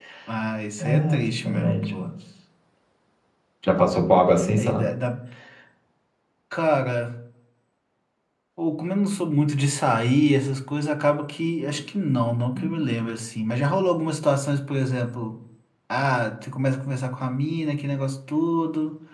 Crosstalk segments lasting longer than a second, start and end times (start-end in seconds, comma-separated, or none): 0.8-2.1